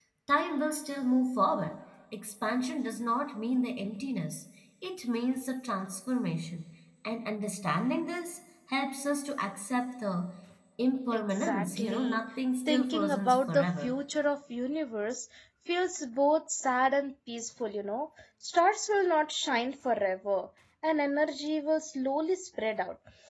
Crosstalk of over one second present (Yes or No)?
Yes